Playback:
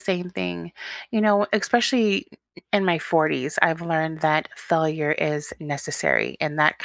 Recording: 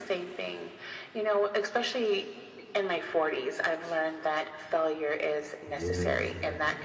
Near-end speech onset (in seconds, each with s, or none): 5.7 s